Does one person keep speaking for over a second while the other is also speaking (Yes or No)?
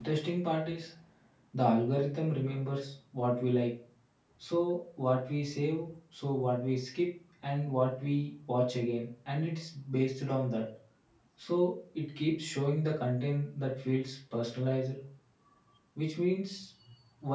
No